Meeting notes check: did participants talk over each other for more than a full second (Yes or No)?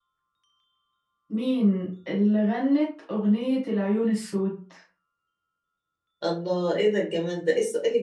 No